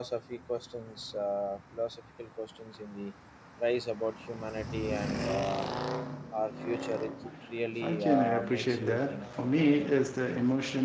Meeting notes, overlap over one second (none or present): present